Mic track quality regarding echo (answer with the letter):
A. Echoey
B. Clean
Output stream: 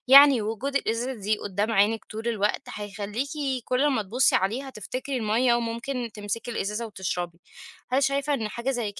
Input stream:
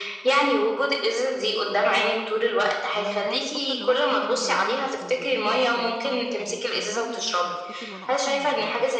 A